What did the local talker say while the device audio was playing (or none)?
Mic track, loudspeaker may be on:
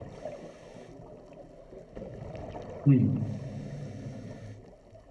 嗯。